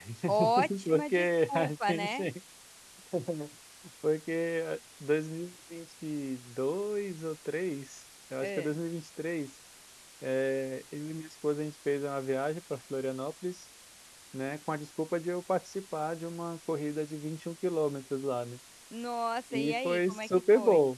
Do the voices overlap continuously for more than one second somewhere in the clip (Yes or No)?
Yes